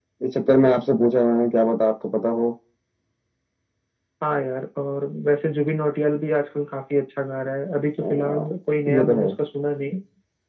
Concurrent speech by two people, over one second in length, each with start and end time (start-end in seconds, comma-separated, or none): none